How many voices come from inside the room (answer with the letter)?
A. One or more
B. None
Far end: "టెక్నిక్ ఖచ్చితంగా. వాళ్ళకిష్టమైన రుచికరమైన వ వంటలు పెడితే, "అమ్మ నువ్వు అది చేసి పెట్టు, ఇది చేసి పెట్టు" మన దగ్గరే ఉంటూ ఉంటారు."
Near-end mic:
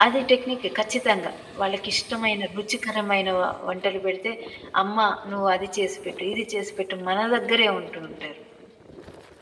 B